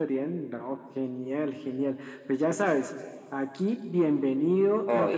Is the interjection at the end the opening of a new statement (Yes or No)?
No